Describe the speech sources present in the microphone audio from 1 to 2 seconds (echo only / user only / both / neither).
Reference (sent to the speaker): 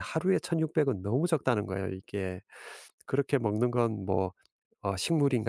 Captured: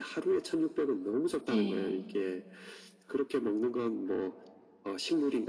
both